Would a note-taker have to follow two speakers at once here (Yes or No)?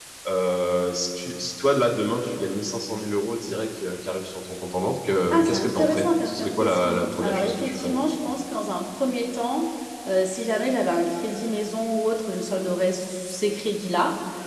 Yes